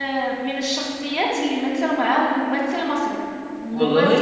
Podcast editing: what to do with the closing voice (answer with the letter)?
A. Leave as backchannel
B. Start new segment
A